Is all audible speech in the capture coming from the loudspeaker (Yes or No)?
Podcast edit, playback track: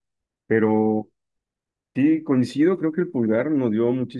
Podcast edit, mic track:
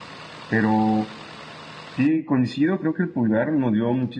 Yes